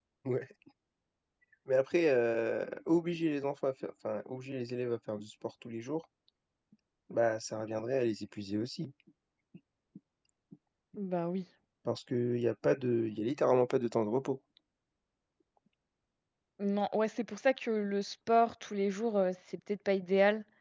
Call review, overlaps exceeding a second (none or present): none